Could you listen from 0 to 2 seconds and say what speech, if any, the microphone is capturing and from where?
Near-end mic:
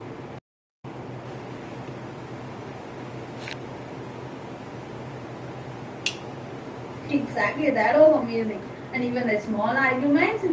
neither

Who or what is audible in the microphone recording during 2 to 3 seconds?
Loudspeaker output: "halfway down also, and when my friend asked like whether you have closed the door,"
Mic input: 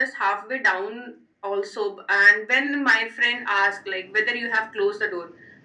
echo only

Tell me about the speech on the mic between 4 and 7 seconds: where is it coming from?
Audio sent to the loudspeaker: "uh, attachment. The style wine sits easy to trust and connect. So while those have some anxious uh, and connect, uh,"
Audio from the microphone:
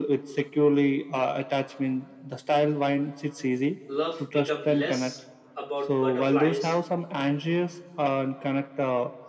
both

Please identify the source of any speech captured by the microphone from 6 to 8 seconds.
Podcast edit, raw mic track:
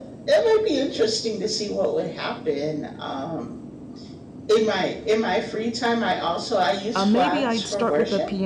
both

